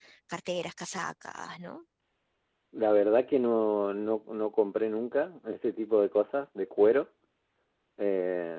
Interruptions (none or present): none